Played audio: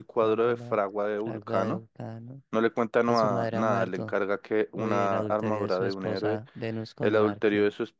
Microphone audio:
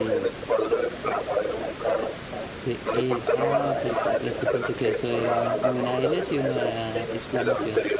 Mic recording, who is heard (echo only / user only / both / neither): both